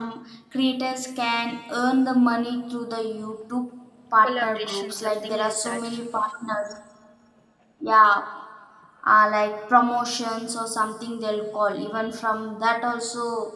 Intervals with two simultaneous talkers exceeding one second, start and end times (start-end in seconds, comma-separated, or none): 4.2-5.9